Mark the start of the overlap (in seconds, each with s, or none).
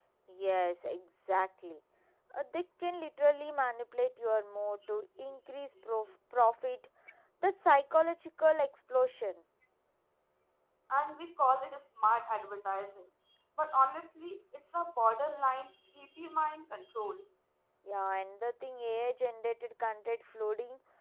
none